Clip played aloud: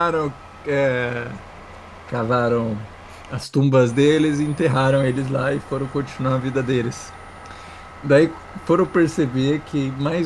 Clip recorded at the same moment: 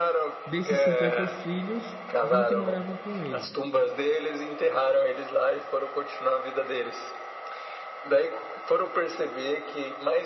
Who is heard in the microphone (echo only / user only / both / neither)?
both